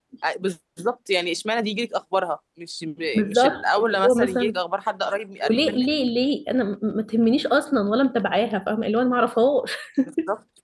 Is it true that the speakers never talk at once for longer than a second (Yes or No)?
No